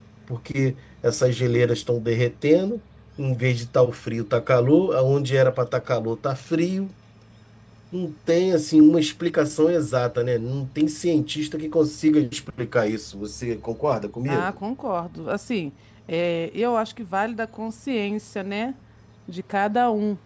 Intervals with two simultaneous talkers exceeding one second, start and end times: none

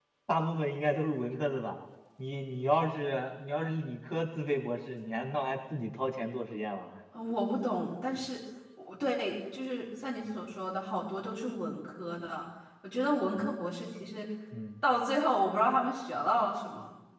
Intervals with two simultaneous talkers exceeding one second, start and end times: none

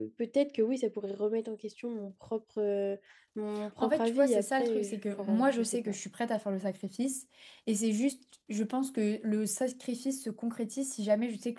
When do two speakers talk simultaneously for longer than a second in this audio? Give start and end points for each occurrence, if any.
3.8-6.0

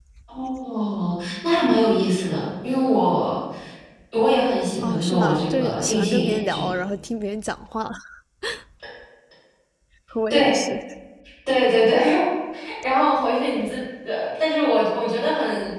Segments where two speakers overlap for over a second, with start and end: 4.8-6.7

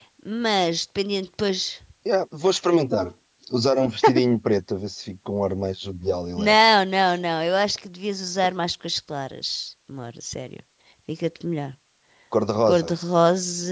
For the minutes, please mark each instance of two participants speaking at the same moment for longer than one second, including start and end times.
none

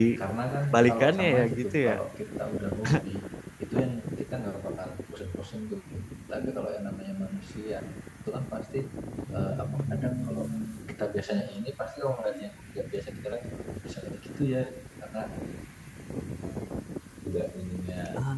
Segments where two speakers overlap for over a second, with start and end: 0.7-1.9

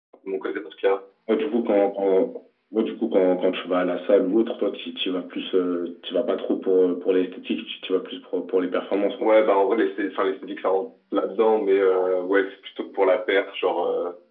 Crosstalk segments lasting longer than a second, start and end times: none

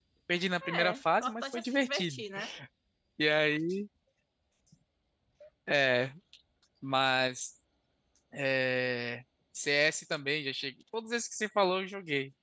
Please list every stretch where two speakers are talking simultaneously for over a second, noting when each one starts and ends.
0.8-2.2

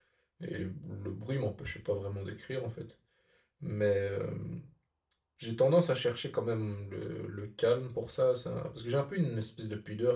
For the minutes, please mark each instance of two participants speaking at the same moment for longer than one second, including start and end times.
none

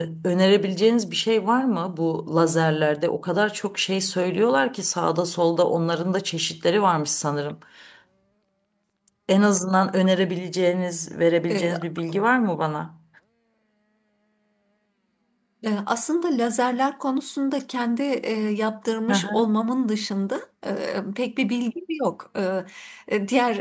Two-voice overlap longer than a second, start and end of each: none

